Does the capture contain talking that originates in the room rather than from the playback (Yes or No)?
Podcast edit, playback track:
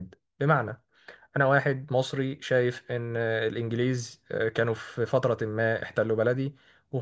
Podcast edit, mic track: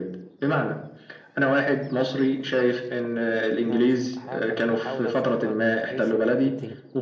Yes